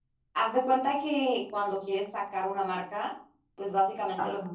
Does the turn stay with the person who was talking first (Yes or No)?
Yes